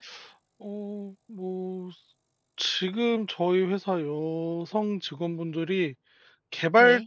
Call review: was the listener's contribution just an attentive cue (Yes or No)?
Yes